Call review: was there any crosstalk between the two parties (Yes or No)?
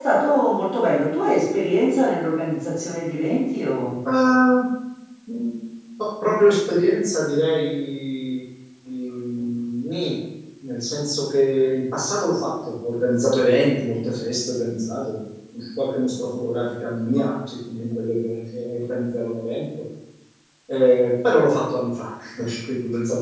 No